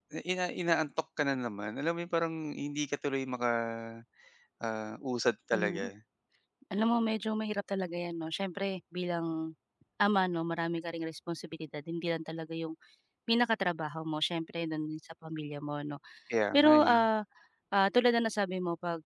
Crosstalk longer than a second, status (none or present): none